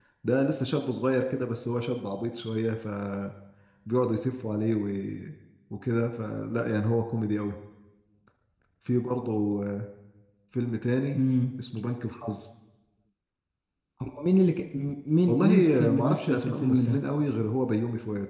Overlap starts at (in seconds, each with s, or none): 15.3 s